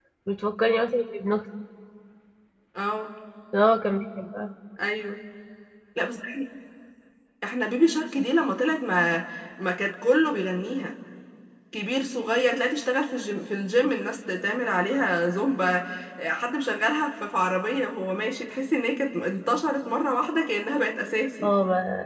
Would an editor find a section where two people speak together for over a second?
No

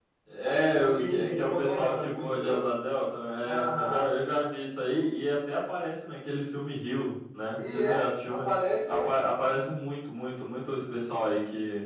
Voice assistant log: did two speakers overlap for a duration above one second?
Yes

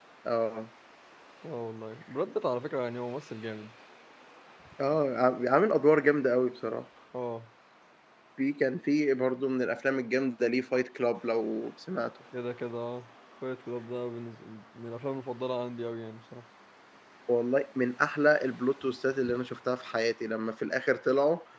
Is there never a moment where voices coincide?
Yes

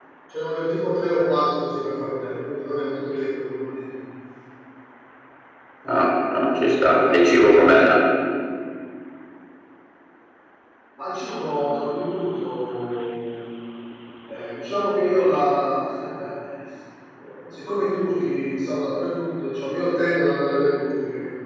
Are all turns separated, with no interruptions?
Yes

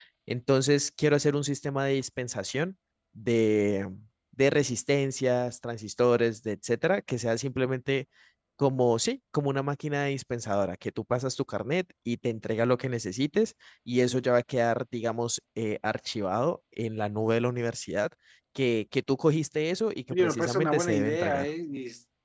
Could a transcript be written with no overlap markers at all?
No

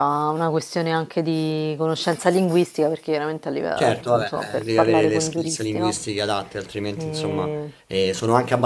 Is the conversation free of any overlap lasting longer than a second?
No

